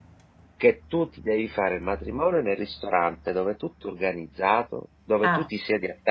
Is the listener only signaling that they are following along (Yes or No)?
Yes